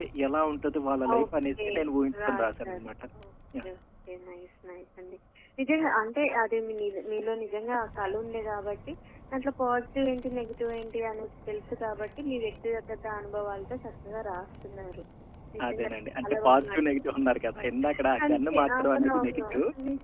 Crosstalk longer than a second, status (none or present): present